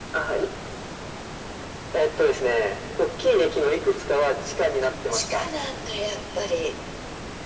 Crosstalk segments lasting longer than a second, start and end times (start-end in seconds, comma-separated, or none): none